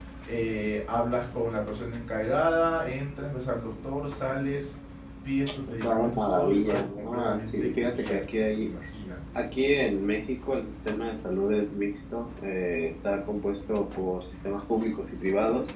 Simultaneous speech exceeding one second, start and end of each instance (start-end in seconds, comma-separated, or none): 5.7-8.7